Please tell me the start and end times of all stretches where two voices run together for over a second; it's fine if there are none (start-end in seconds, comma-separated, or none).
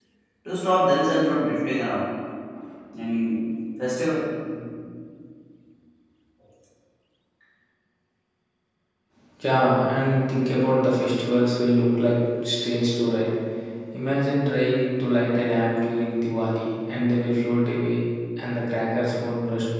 none